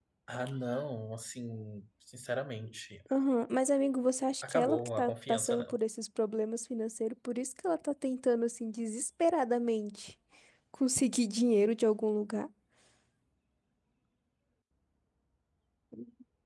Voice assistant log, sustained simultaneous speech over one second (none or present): present